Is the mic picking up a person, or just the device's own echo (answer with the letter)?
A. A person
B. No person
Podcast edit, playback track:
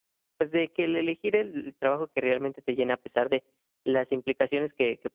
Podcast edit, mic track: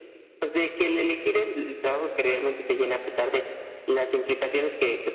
B